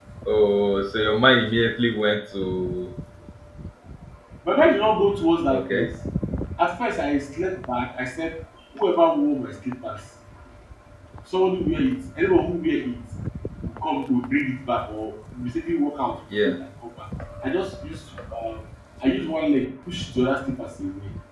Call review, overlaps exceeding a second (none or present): none